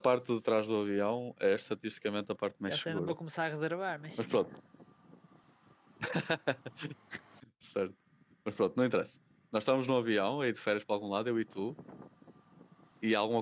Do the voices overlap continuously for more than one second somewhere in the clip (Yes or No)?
No